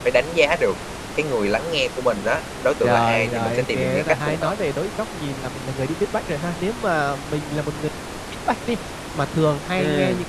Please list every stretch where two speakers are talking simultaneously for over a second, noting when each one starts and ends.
2.8-4.5

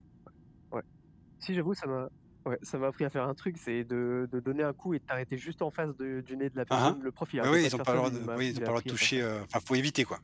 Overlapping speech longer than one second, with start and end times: 7.4-9.1

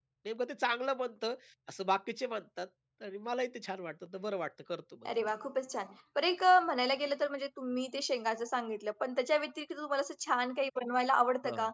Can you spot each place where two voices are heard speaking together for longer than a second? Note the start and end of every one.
none

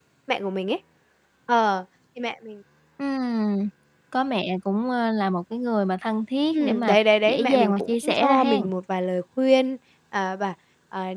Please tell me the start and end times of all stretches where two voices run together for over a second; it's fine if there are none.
6.5-8.6

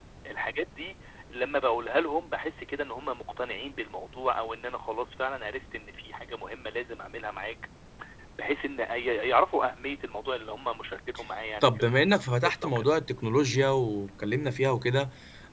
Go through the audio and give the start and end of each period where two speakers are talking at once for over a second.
11.6-12.8

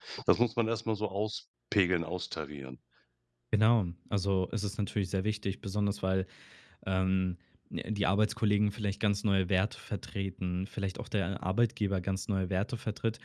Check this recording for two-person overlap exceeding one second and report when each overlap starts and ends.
none

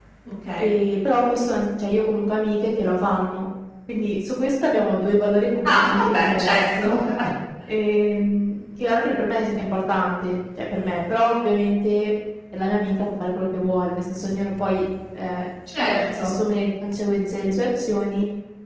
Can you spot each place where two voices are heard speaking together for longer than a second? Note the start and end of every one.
5.6-7.0

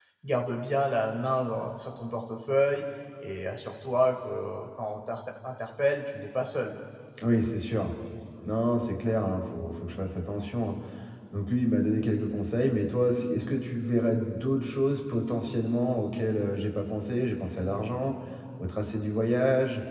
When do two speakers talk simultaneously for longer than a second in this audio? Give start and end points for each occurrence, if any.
none

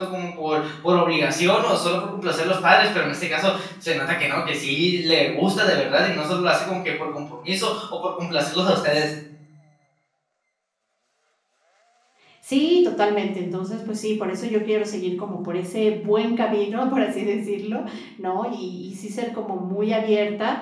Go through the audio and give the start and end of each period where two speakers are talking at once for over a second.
none

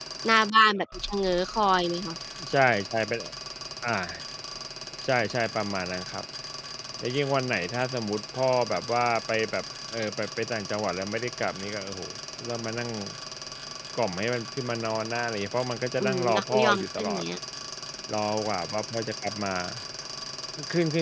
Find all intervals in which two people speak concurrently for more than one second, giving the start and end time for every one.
16.0-17.2

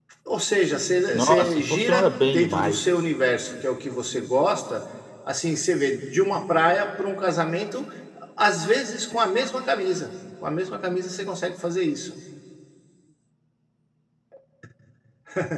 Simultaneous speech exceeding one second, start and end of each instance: 1.1-2.8

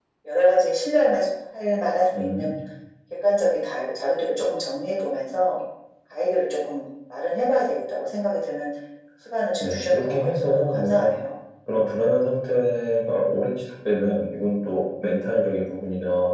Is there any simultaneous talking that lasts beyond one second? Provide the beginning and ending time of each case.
9.6-11.1

